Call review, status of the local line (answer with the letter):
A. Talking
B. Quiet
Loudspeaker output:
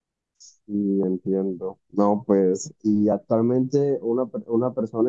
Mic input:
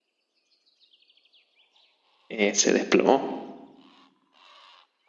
A